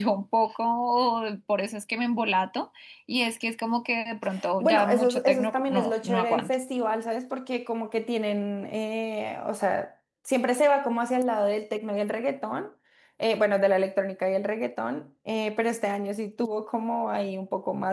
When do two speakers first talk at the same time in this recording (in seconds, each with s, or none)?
4.6 s